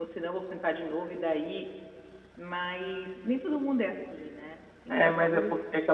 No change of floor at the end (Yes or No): No